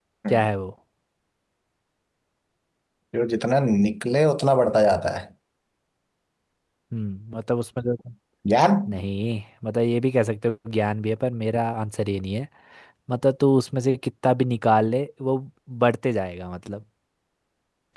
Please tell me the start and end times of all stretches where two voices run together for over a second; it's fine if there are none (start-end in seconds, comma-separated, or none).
none